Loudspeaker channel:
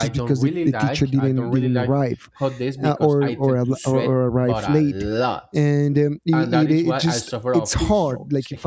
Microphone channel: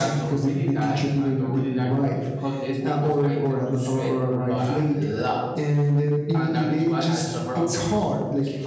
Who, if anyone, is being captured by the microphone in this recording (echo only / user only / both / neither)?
echo only